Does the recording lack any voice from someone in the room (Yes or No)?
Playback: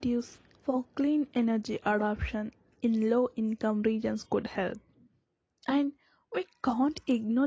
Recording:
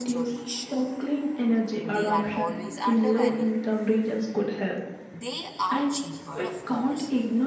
No